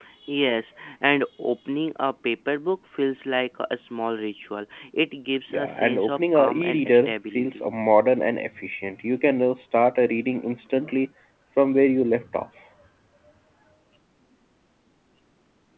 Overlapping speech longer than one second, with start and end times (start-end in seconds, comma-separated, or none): 5.5-7.7